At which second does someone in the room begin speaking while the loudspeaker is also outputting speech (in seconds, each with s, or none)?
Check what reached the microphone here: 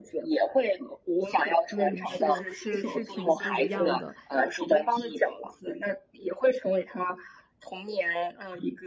1.7 s